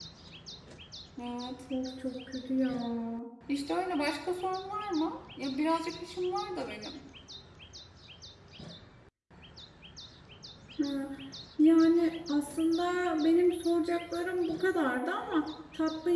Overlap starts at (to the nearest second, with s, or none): none